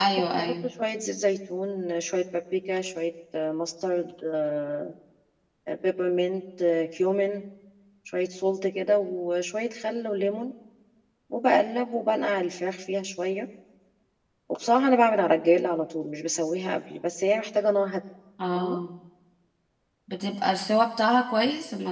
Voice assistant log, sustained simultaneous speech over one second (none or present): none